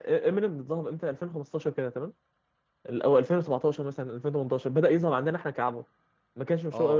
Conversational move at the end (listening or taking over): taking over